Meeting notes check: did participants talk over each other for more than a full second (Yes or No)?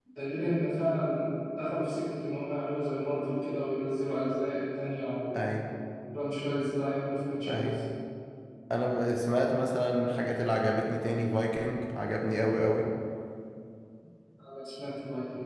No